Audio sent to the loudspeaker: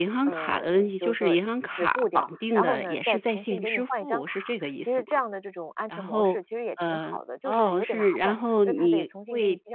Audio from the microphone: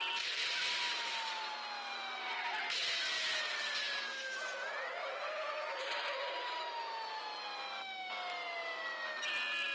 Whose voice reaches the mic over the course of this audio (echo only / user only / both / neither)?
neither